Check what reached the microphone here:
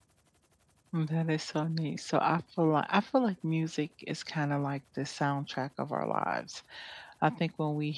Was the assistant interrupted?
Yes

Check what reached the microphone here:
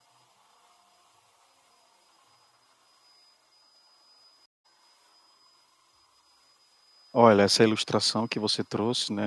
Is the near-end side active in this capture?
Yes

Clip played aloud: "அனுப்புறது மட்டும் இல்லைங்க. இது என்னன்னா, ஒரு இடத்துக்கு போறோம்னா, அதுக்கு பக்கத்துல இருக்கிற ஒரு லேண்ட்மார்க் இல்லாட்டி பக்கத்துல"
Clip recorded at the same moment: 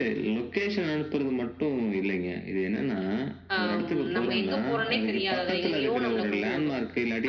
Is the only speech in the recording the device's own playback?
No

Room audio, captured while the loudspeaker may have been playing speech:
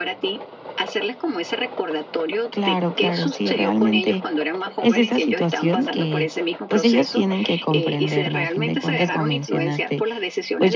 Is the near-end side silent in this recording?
No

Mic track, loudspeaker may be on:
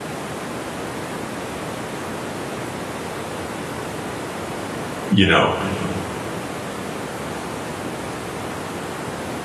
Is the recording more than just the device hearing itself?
Yes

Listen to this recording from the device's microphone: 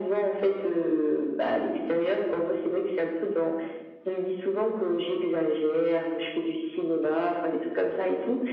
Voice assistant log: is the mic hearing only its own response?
Yes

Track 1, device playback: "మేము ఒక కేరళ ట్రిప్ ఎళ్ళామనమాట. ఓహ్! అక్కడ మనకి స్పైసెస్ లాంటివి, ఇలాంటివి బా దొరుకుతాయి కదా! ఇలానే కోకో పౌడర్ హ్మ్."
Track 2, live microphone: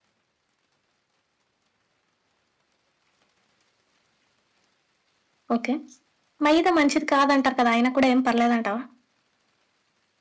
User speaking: Yes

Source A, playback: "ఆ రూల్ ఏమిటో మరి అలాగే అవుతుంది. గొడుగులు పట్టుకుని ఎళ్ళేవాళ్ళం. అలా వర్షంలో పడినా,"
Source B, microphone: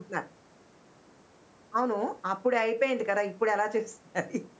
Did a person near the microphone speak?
Yes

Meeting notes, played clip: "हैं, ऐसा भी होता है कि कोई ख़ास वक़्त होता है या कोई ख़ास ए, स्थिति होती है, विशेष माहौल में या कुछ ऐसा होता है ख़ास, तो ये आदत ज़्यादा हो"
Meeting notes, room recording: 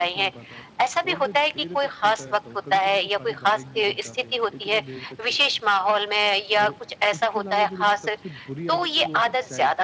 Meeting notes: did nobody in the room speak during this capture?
No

